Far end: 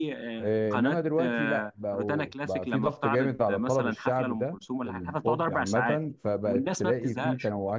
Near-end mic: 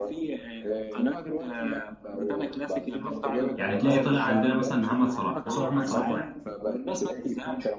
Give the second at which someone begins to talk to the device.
3.5 s

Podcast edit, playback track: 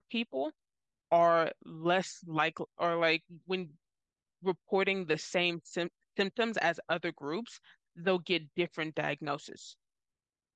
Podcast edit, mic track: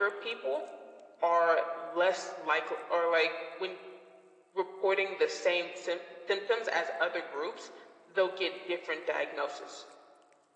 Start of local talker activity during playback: none

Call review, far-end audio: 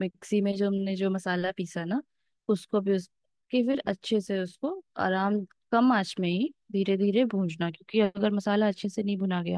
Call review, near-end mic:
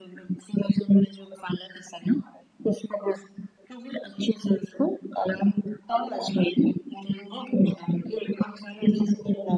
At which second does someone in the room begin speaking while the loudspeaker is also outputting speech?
none

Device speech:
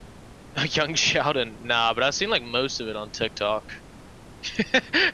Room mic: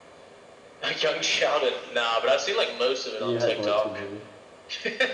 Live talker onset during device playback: 3.2 s

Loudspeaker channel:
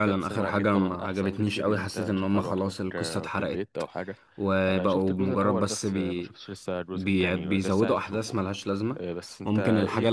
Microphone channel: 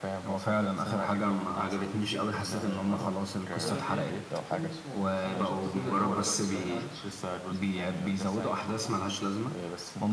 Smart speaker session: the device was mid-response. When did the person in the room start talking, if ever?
2.3 s

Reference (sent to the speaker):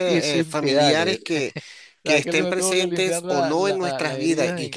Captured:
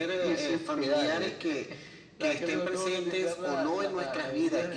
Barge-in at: none

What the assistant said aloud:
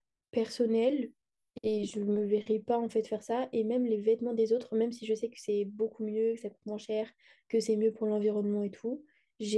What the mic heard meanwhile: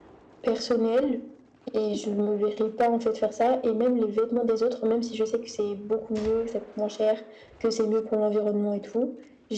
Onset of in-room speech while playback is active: none

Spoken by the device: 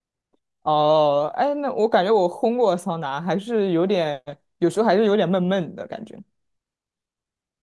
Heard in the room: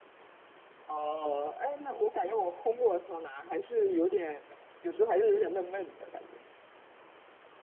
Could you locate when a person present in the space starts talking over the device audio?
none

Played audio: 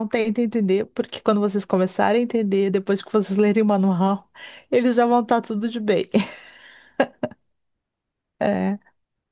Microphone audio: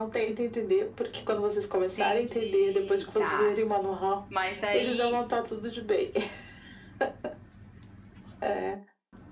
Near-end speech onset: 1.9 s

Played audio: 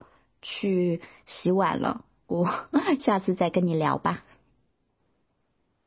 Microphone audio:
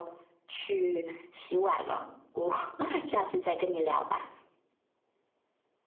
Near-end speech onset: none

